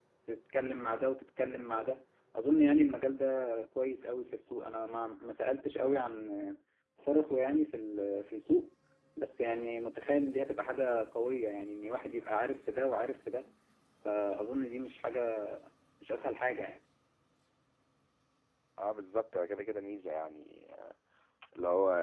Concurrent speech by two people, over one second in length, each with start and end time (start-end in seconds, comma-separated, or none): none